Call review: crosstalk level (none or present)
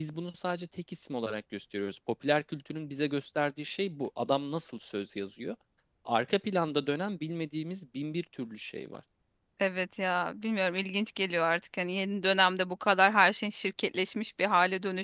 none